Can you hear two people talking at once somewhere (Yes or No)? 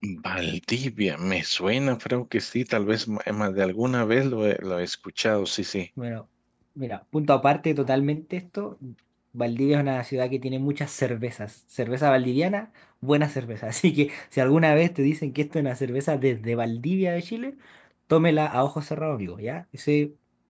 No